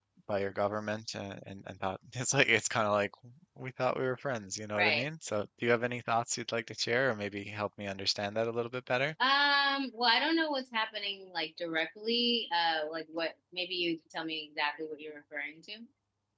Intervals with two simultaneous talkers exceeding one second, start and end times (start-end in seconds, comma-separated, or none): none